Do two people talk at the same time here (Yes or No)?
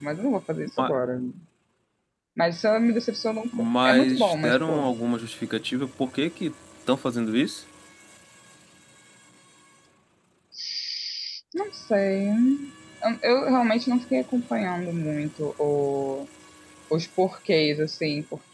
Yes